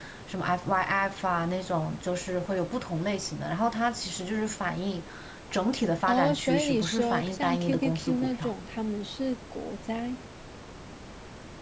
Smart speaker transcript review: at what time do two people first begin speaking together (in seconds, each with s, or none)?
6.1 s